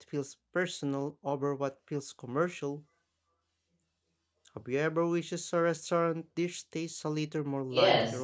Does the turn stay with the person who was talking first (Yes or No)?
No